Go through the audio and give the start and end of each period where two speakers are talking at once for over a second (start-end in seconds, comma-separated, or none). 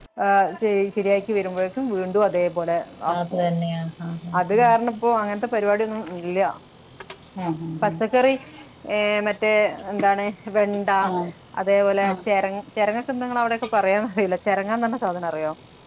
none